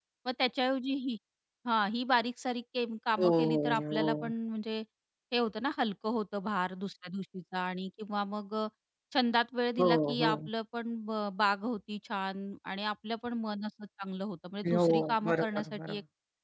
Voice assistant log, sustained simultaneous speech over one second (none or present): present